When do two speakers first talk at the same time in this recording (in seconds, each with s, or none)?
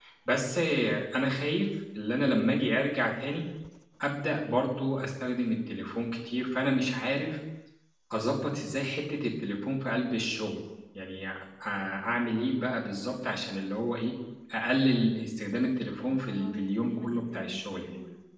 16.1 s